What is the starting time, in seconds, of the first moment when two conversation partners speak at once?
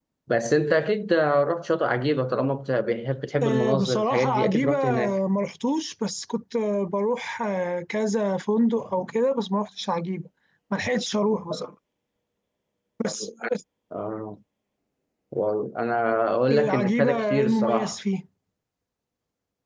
3.4 s

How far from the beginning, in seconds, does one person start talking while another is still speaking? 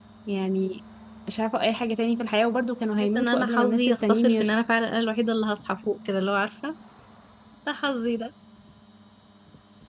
3.0 s

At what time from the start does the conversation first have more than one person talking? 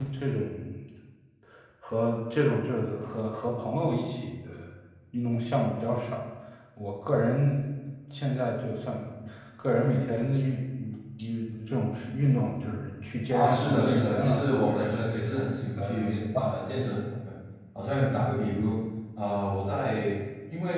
13.3 s

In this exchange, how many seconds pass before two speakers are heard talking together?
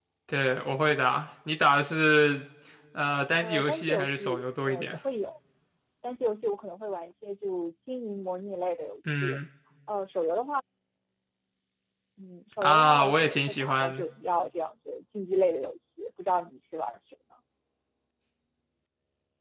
3.4 s

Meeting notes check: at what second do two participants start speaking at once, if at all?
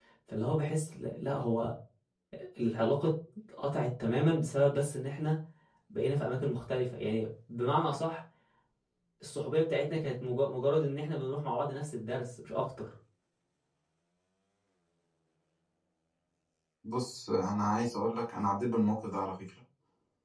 none

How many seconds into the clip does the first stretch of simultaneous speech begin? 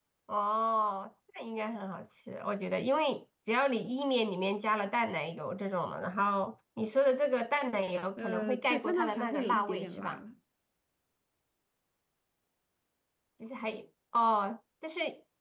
8.2 s

